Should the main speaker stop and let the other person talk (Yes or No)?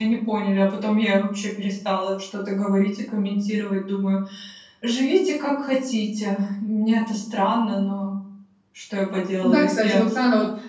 Yes